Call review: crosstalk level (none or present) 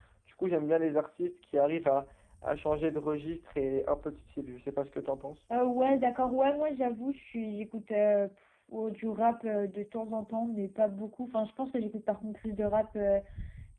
none